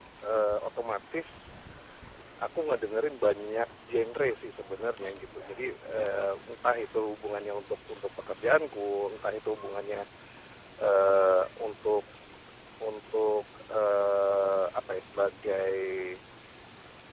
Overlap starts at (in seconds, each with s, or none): none